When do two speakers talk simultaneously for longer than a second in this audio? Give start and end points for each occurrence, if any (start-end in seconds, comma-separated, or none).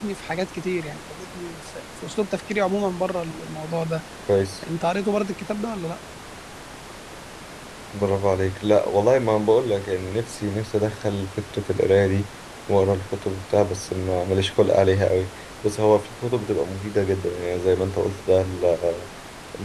none